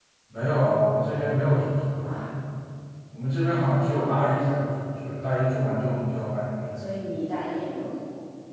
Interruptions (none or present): none